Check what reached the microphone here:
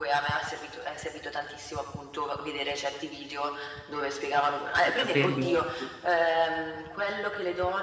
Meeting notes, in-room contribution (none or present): present